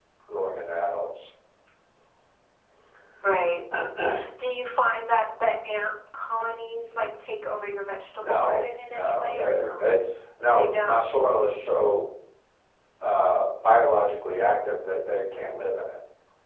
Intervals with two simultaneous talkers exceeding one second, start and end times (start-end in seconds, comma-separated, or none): 8.2-9.8